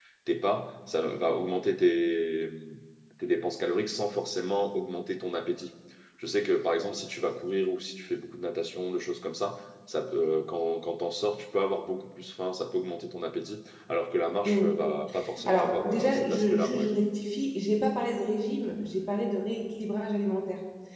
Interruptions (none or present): present